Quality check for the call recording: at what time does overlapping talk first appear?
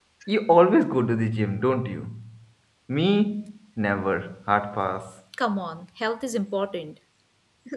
none

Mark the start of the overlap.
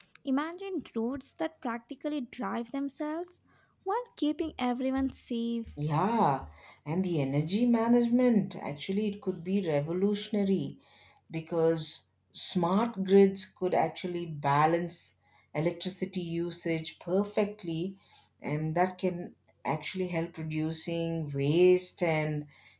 none

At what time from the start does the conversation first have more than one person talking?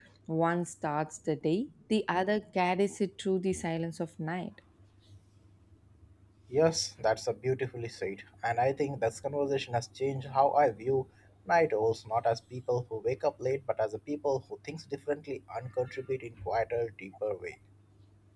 none

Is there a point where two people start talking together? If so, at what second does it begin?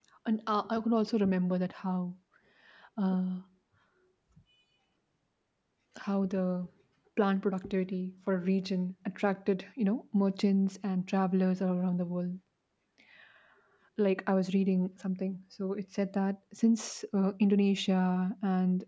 none

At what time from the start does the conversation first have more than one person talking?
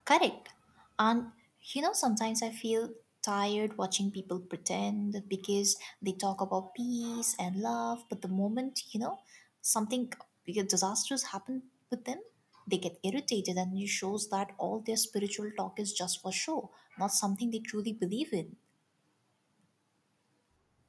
none

